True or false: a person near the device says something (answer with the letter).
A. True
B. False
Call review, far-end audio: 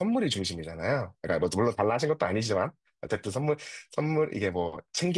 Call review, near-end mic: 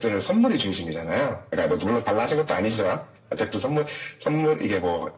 B